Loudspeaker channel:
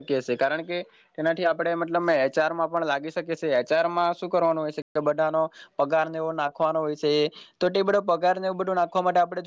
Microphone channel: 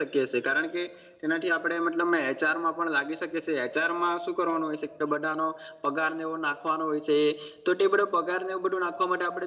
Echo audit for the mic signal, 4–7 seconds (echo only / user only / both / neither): echo only